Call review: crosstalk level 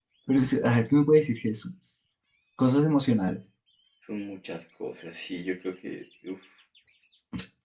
none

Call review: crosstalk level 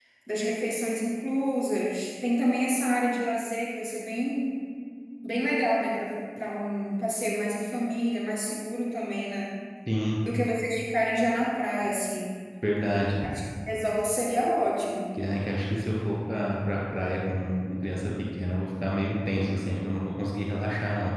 none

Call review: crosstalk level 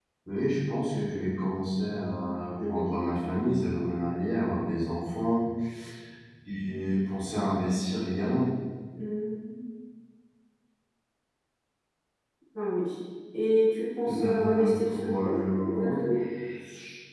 present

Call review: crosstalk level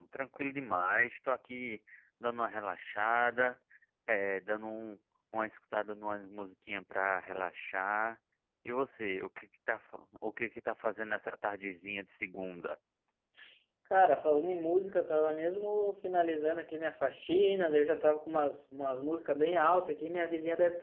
none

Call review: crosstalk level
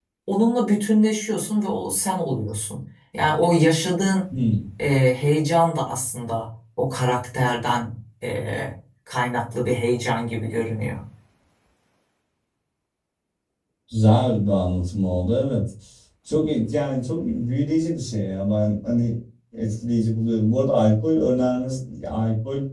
none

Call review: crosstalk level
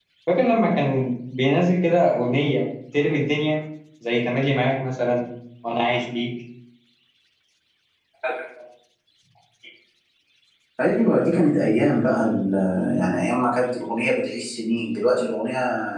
none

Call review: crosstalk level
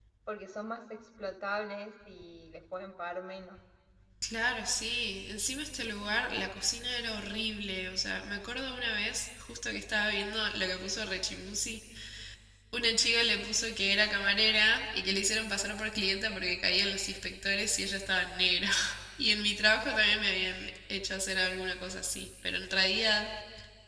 none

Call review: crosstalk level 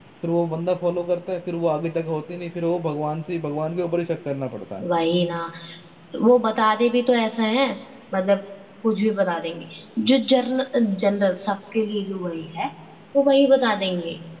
none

